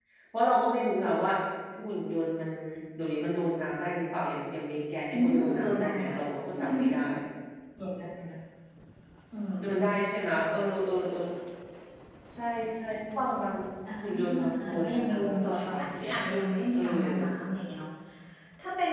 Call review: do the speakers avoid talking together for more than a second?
No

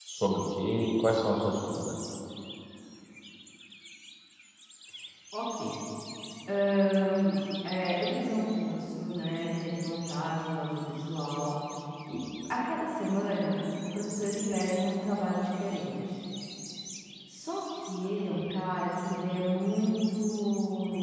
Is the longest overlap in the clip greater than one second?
No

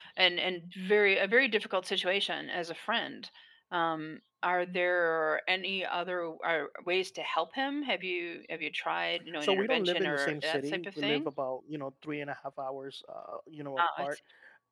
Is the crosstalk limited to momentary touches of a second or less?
No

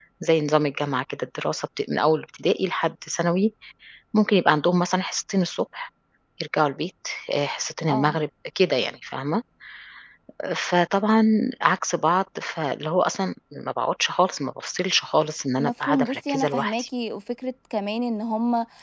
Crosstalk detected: Yes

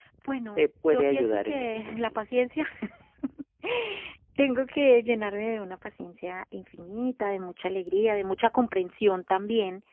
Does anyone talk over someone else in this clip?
Yes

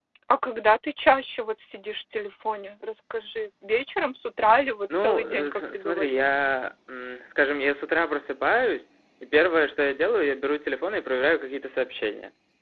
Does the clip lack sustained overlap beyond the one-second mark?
No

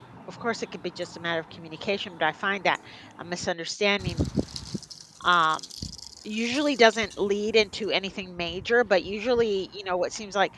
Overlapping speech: No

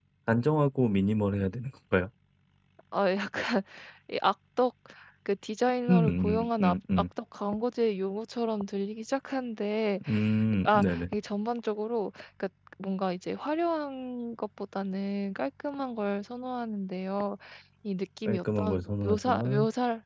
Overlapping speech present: Yes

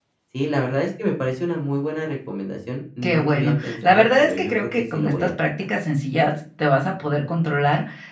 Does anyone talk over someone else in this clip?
Yes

